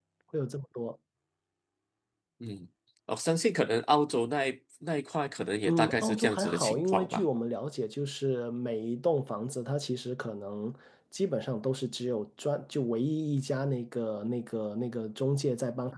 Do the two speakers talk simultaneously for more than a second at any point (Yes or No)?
Yes